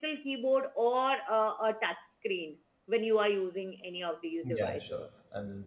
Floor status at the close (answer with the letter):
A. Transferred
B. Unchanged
A